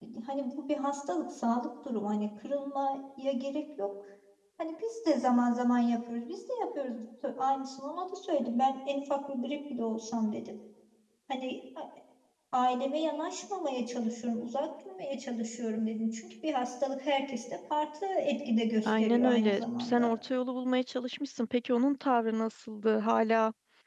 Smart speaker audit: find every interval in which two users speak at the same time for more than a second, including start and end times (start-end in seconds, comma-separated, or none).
18.8-20.1